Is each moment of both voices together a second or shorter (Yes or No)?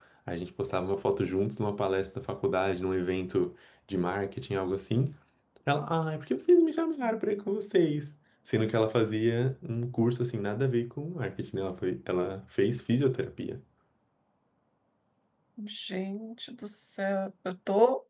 Yes